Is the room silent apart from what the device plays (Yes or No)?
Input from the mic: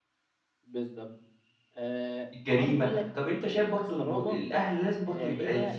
No